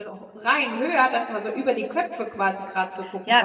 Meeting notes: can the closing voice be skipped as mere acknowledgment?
No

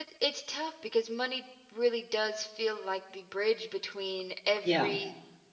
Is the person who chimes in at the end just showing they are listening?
Yes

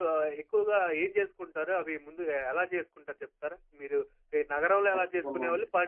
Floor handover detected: No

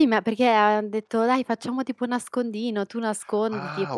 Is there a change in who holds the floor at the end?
Yes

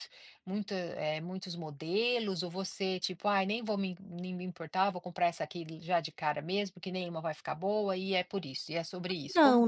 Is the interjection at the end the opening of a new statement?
Yes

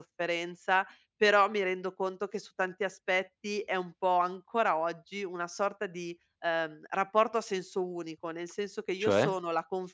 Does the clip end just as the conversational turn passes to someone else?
No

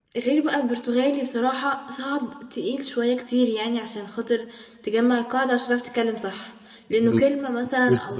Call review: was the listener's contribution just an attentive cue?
No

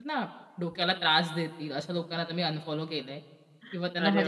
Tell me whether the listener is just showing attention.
Yes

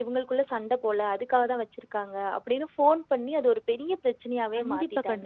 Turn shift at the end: Yes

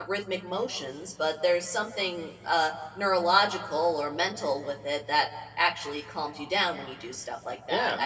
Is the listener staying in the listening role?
No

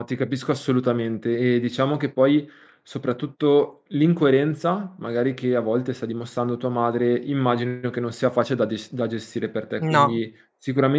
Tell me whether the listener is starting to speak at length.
No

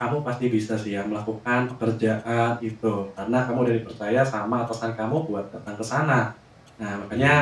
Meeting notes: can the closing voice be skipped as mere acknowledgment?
Yes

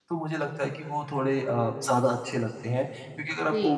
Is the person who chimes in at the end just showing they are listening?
Yes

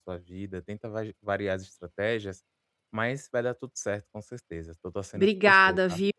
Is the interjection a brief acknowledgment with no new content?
No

